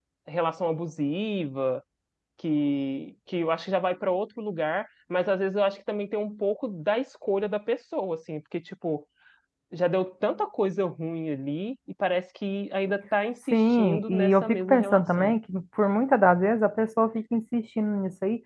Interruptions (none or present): present